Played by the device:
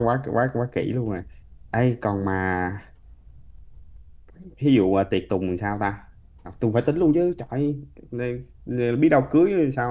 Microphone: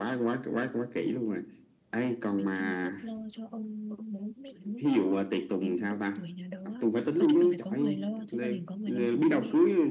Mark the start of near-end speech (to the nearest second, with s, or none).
2 s